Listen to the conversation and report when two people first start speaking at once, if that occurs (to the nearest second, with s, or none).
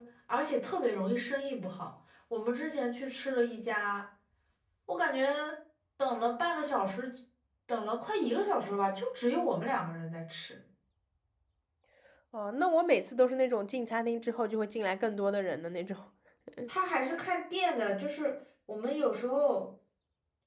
none